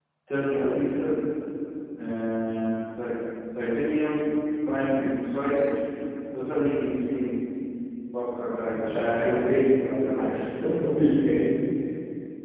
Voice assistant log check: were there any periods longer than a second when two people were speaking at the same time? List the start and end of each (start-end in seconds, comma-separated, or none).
none